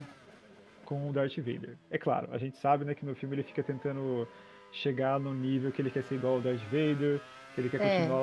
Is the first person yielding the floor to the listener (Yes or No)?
No